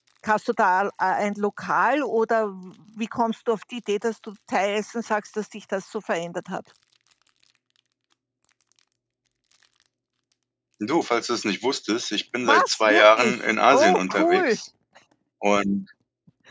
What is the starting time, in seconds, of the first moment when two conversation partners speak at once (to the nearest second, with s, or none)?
12 s